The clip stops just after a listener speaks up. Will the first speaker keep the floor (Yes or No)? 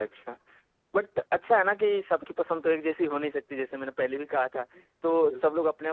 Yes